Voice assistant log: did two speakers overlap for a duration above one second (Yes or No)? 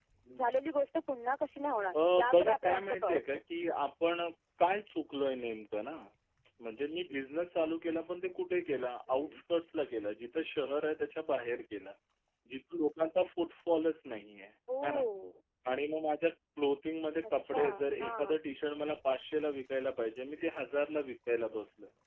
Yes